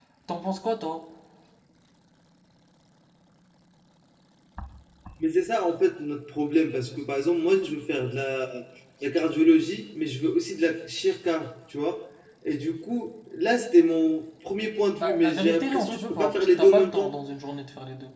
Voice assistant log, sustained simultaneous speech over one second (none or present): present